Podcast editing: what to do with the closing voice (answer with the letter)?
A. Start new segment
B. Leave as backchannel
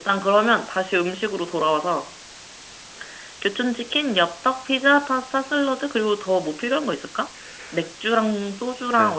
A